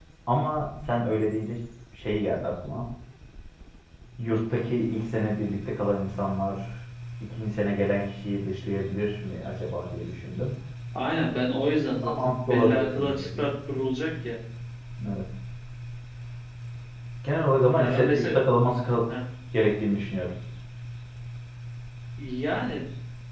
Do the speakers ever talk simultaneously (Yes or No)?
Yes